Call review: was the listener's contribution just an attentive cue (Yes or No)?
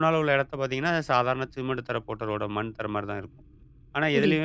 Yes